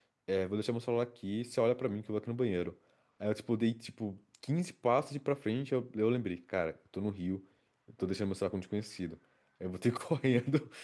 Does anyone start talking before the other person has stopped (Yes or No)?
No